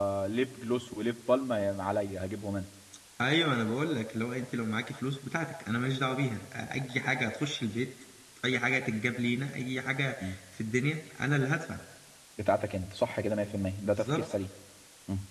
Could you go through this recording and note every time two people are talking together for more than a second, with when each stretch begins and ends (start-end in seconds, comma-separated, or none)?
none